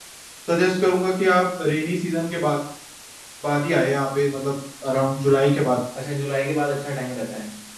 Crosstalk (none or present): none